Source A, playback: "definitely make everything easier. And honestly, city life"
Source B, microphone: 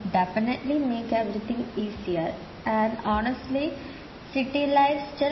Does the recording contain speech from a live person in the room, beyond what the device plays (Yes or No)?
No